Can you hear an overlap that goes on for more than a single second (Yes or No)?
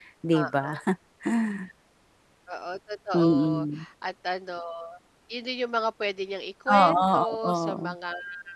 Yes